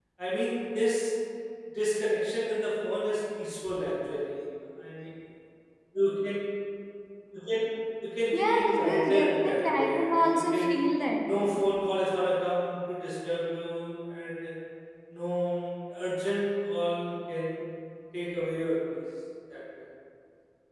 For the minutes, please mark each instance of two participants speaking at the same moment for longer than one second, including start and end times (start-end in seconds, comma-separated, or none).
8.3-10.7